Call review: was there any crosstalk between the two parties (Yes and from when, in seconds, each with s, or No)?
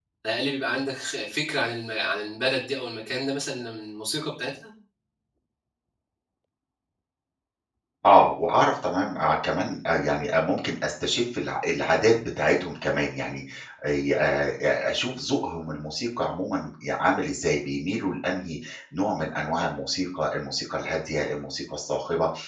No